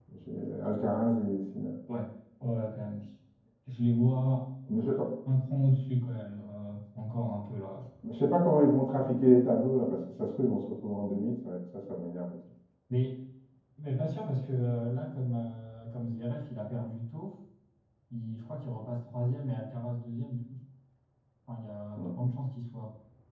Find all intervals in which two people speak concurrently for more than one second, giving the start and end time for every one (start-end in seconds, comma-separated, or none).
none